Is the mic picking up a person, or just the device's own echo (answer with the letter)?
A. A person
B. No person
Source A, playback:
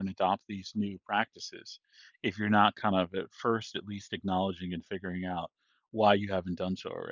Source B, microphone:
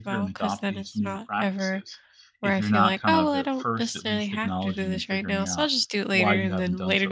A